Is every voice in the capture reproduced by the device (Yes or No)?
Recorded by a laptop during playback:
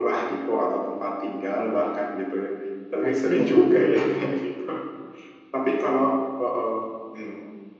No